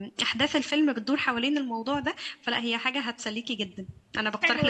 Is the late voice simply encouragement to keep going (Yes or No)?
No